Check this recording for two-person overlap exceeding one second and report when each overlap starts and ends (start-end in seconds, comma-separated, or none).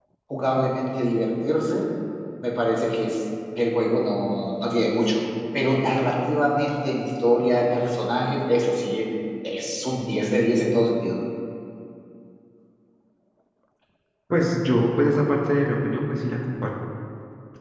none